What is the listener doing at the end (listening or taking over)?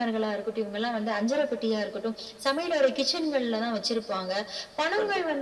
listening